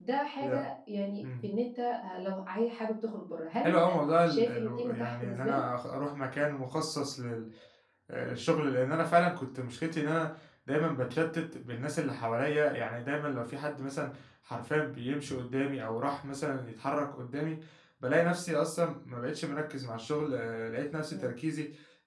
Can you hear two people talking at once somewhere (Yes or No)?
Yes